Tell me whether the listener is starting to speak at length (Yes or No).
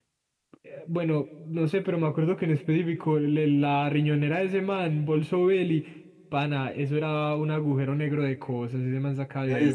Yes